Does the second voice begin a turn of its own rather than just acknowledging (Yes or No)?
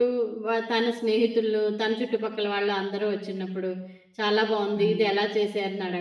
No